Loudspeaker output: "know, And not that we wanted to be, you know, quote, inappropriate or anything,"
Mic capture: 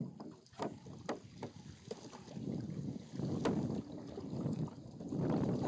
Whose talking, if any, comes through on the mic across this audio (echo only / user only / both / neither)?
neither